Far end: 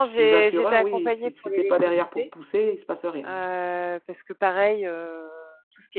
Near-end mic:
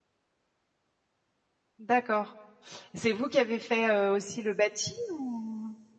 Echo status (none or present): none